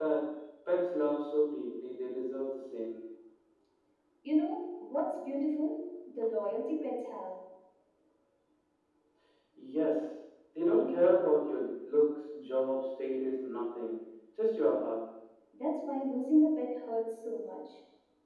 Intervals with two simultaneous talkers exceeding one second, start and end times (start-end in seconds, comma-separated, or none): none